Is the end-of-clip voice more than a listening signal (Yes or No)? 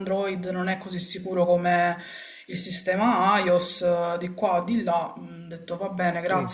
Yes